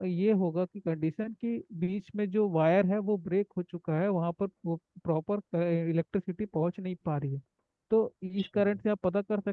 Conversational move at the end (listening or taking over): listening